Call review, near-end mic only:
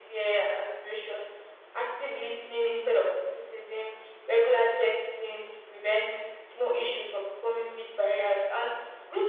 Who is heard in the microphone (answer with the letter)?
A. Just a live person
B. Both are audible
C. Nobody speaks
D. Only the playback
D